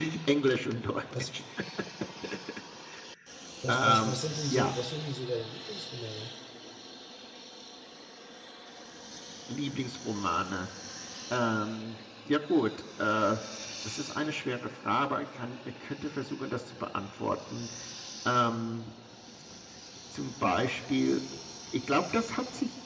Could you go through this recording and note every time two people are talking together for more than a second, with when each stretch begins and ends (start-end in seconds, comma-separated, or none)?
none